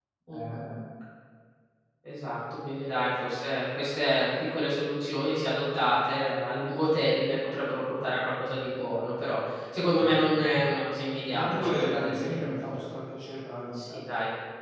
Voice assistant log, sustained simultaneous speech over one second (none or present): present